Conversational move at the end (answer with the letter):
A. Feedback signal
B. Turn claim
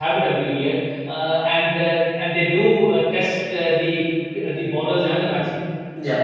A